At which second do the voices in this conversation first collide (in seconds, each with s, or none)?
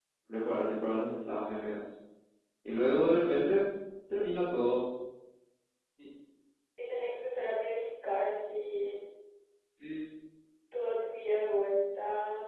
none